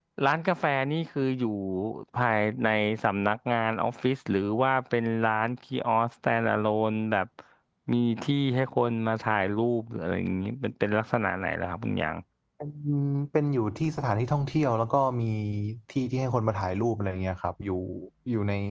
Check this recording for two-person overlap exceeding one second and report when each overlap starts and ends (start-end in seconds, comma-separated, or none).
none